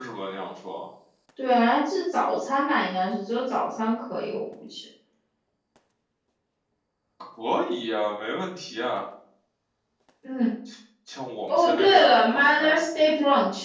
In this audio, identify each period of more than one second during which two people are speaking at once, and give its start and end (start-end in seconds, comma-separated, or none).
11.5-12.8